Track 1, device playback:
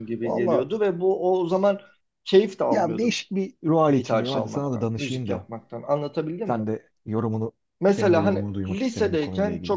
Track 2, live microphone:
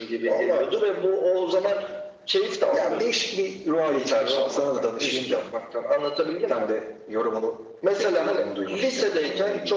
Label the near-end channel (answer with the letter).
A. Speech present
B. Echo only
B